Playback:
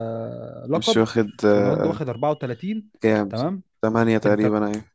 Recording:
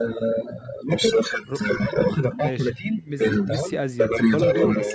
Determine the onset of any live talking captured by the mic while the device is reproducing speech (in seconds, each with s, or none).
1.5 s